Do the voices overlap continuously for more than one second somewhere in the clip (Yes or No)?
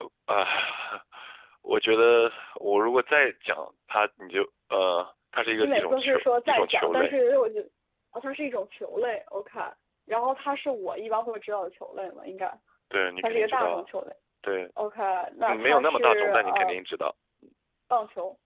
Yes